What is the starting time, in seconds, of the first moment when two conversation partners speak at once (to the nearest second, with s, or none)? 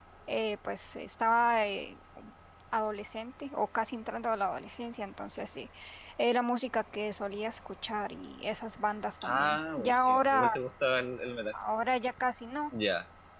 9 s